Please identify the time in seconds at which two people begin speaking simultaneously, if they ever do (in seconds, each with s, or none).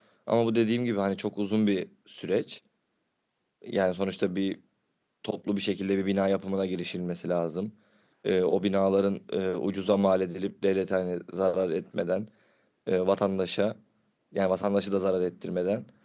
none